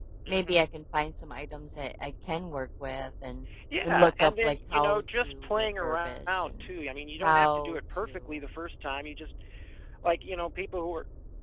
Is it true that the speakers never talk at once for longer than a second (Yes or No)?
No